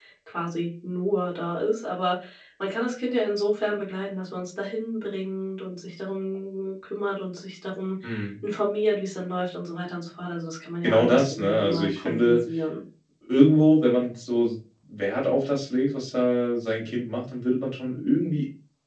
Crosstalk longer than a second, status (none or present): present